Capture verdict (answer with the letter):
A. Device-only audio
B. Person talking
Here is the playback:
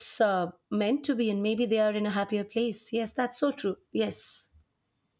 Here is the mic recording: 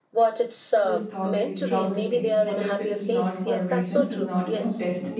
B